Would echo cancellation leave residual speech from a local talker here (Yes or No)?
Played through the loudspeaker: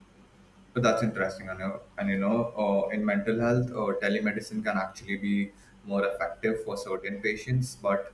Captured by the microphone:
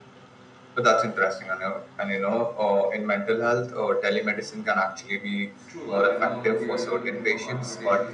Yes